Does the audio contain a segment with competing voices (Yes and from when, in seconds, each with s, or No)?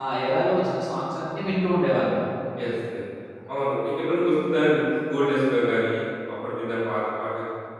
No